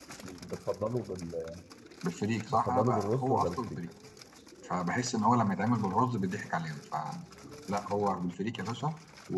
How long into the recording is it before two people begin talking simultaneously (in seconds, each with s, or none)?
2.5 s